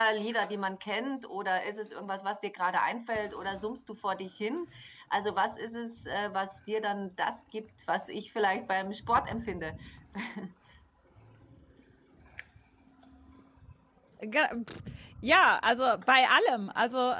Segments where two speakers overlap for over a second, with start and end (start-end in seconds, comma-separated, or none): none